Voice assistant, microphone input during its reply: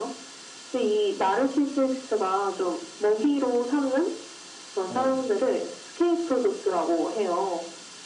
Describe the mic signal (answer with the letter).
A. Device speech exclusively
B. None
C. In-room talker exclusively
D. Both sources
D